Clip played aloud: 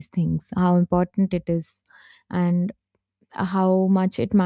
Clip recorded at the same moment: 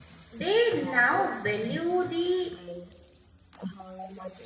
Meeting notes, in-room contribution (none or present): present